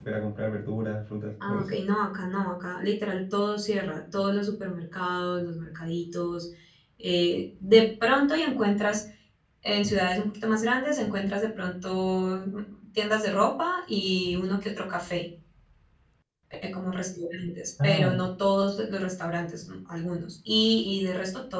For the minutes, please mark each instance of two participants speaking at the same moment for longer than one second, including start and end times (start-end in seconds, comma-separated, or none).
none